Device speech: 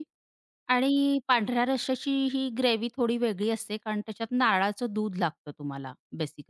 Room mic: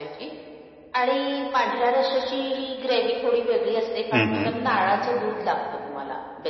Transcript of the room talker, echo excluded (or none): हं, हं.